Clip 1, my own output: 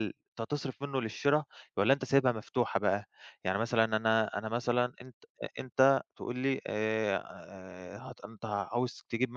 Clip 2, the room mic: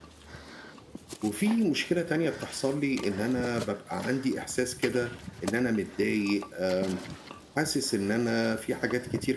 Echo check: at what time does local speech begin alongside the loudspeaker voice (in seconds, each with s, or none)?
1.2 s